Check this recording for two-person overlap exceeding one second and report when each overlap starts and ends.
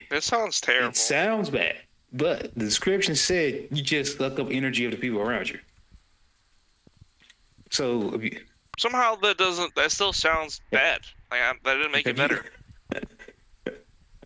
none

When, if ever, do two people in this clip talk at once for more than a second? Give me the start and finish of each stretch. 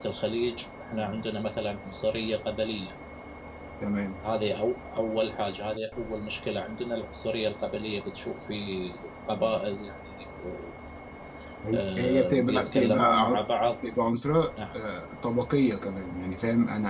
11.7-13.4

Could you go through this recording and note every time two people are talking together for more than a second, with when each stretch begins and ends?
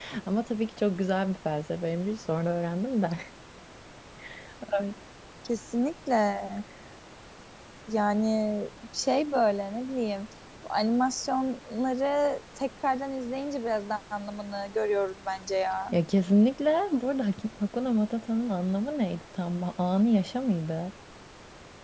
none

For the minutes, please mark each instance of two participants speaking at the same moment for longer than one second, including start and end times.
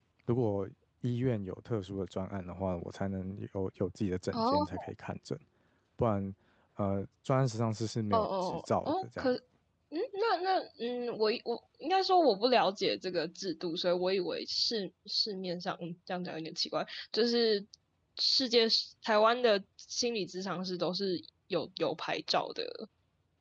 8.1-9.3

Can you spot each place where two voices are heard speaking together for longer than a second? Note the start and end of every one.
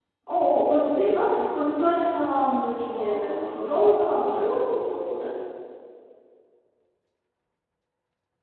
2.7-4.6

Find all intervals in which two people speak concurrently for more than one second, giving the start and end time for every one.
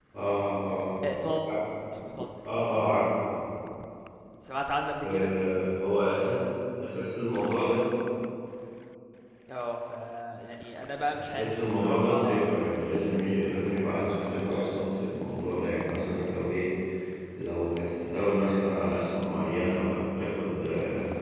11.2-12.5

